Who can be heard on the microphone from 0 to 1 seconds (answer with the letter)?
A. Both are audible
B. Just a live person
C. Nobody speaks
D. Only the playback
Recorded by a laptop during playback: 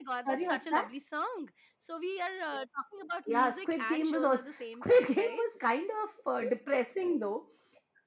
A